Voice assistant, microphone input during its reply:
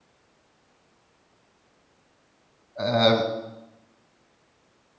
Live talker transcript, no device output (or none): um,